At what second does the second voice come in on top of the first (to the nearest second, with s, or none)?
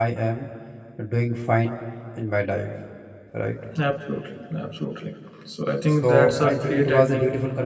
6 s